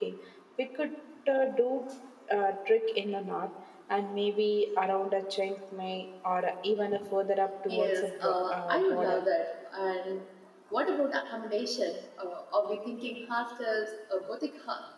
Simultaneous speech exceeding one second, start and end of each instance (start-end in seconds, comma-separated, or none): 7.7-9.2